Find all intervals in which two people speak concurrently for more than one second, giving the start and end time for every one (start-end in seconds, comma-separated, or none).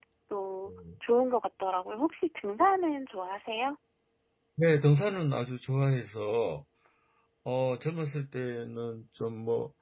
none